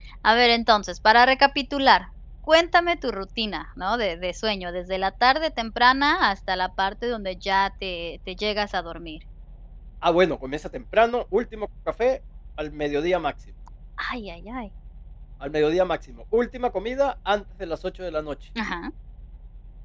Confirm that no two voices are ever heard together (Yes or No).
Yes